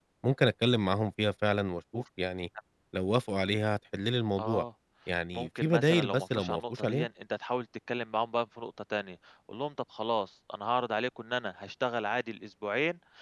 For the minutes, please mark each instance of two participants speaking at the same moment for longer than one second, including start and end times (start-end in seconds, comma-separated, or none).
5.3-7.1